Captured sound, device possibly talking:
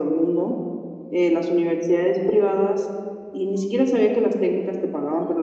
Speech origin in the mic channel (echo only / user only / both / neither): echo only